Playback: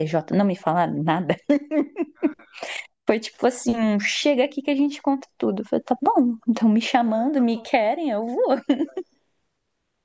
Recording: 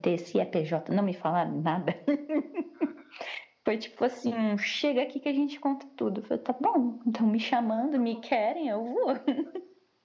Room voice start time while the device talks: none

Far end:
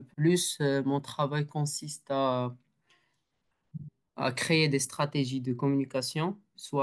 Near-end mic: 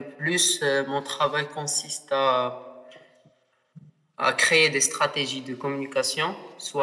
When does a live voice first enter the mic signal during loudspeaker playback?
none

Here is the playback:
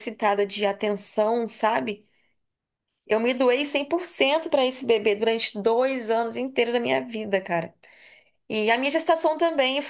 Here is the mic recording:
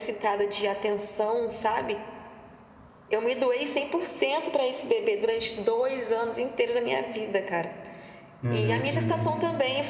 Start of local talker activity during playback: 8.4 s

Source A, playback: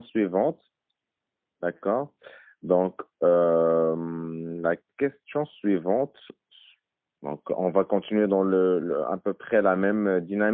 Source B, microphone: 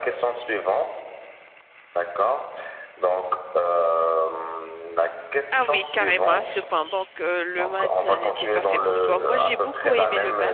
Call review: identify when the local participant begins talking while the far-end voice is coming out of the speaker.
5.5 s

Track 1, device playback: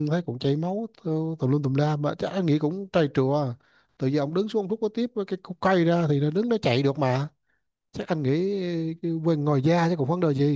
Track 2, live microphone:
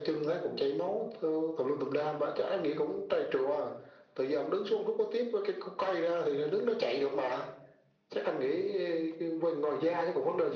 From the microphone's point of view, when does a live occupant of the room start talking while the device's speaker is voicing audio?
none

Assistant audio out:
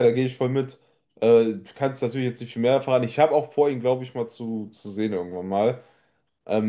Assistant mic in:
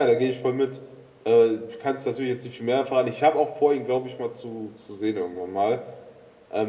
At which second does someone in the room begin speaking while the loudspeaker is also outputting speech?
none

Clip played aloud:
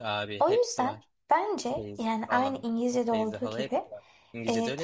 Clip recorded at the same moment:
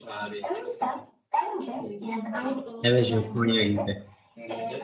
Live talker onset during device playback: 2.8 s

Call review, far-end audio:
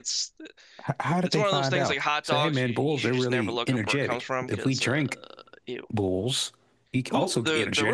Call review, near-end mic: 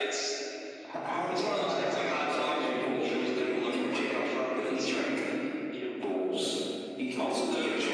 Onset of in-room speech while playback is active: none

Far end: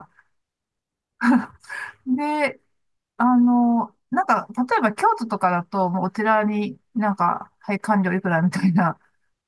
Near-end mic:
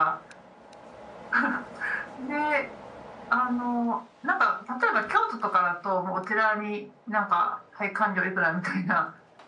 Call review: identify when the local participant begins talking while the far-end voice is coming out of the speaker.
none

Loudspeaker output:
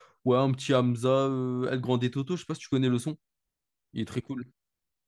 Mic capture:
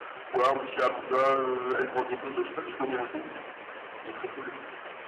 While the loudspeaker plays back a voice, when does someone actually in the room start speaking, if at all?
none

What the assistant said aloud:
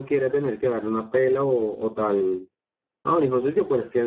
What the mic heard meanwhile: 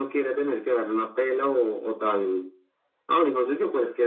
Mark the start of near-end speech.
none

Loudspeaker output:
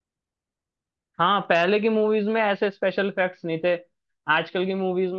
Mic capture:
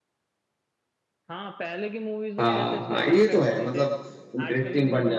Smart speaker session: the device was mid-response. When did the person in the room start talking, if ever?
2.4 s

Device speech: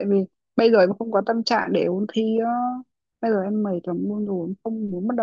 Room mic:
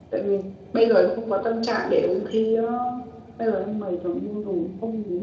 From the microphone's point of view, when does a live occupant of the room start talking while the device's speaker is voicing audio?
none

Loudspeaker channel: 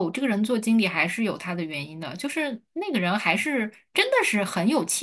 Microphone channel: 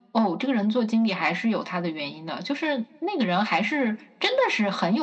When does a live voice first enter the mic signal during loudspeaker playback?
none

